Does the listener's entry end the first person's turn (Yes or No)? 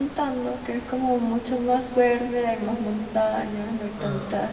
No